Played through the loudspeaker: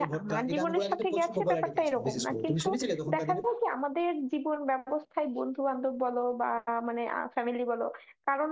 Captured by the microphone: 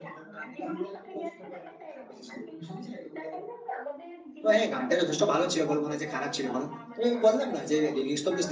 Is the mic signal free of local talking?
No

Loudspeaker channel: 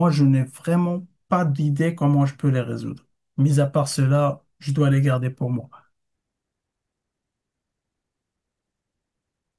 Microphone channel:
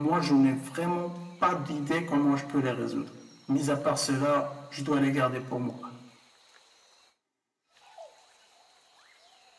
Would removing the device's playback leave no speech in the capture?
Yes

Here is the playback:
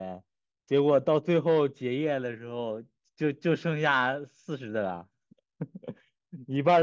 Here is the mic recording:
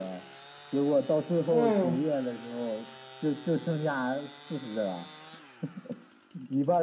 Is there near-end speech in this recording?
Yes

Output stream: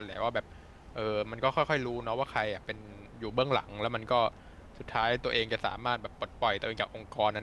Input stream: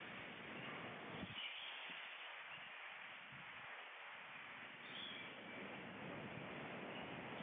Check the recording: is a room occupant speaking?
No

